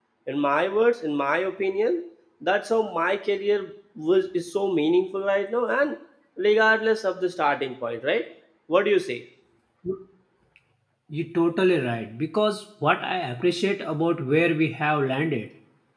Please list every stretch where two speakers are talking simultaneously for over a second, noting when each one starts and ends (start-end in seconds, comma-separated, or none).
none